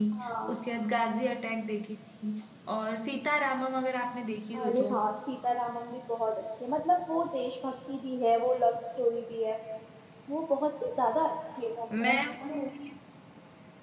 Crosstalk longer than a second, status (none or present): none